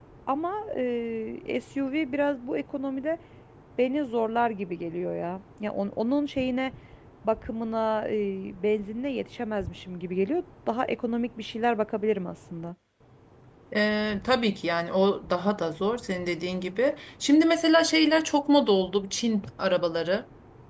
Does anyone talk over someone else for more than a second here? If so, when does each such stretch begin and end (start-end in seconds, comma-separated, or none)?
none